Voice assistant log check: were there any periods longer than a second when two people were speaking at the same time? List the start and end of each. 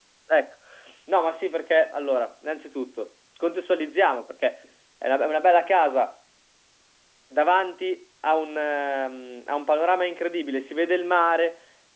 none

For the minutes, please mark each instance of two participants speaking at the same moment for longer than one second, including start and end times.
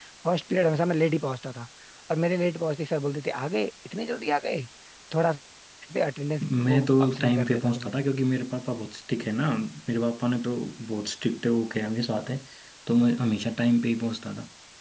6.4-7.9

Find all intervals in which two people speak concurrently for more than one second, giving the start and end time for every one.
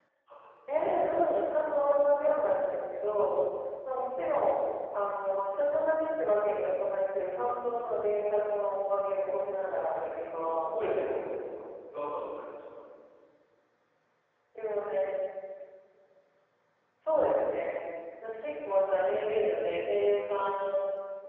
9.8-11.3

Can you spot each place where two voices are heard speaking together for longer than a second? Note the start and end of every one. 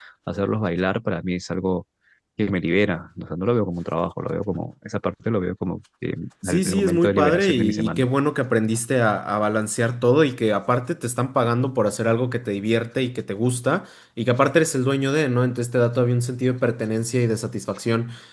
6.4-8.1

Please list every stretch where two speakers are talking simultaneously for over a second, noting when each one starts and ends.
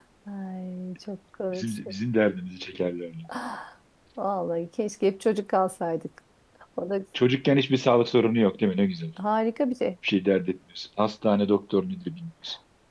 none

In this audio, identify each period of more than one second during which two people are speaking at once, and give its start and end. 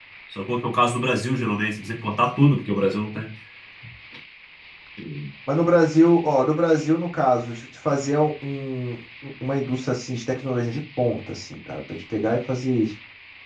none

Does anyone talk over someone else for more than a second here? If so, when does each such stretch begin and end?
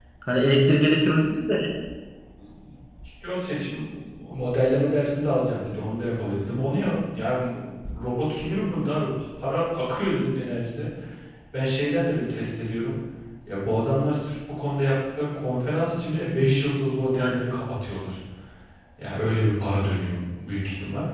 none

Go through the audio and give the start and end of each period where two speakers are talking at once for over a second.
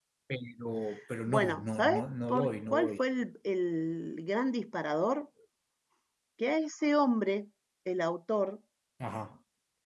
1.3-3.0

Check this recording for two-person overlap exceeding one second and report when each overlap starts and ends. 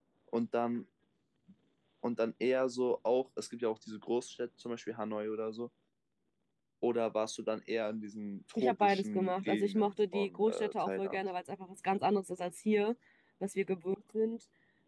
8.6-11.2

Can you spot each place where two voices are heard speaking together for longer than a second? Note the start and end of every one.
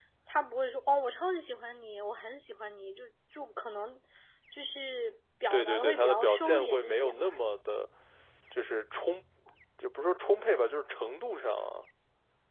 5.5-7.4

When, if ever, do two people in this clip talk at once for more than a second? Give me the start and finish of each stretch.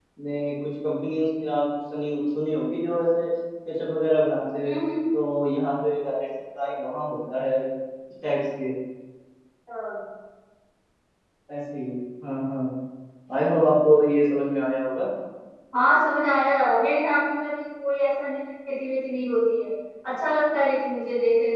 none

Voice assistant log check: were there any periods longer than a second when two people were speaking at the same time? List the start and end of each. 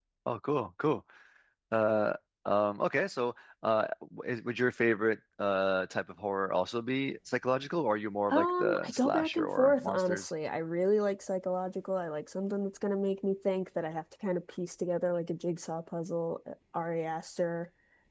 8.3-10.3

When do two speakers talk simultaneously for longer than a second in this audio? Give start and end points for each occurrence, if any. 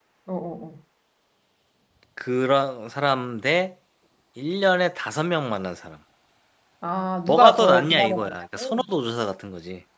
7.3-8.8

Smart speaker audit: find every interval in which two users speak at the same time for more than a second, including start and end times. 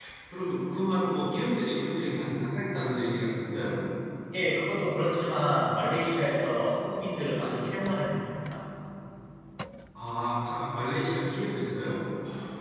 none

